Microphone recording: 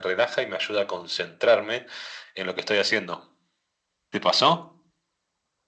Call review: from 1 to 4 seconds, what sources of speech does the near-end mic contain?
echo only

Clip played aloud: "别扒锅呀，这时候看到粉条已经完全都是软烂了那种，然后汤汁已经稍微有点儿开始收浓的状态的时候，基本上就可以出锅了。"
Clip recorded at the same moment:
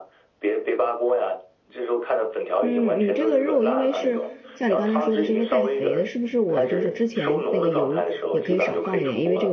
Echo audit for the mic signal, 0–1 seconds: echo only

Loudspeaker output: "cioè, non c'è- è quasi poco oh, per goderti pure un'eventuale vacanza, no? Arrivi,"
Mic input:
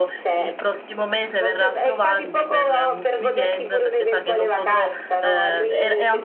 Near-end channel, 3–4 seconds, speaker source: both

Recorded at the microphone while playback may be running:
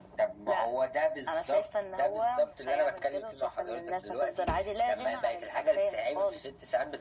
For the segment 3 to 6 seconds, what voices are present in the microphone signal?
echo only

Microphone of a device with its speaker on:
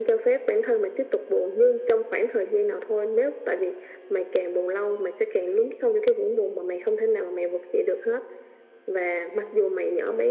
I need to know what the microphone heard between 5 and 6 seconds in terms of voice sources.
echo only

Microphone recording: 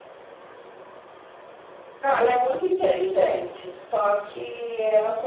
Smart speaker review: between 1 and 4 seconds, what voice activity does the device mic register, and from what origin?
echo only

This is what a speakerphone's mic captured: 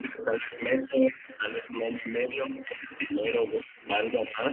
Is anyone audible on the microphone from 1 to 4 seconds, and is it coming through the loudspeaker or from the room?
echo only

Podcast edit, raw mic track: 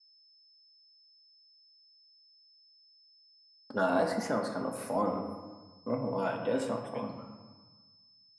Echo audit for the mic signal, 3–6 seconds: user only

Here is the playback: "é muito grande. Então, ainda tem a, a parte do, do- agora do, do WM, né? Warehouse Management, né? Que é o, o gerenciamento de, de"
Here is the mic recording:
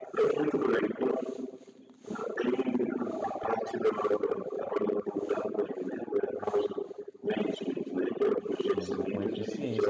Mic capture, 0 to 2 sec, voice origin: echo only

